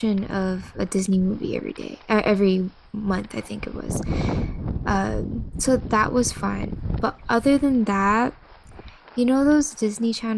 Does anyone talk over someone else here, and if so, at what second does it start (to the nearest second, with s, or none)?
none